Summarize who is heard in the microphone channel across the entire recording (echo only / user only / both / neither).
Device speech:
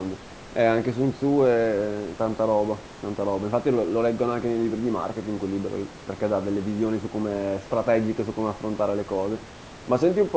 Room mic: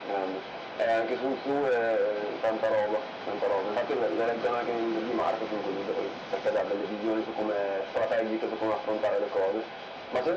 echo only